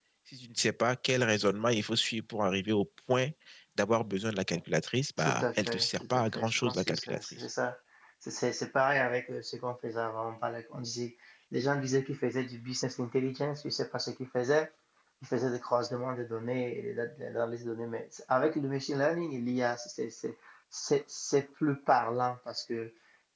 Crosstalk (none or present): present